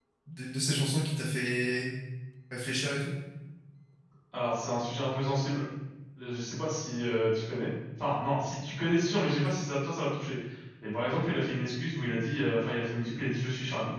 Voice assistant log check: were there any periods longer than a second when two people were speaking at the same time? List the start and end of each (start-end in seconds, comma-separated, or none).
none